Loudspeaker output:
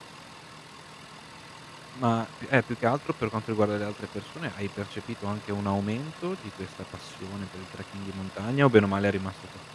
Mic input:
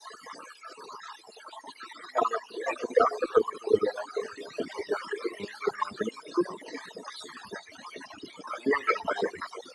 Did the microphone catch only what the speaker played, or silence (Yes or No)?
Yes